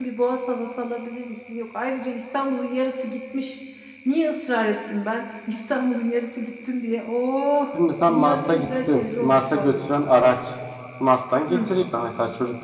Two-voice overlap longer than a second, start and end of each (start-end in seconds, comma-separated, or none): 8.1-9.7